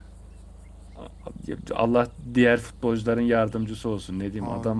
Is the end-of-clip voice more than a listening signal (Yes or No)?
No